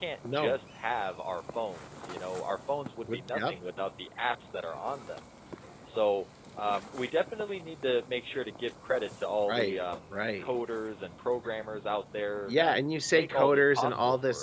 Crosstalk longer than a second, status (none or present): present